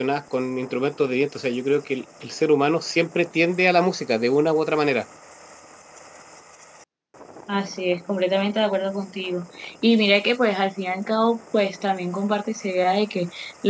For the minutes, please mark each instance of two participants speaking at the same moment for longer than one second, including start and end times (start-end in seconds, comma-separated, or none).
none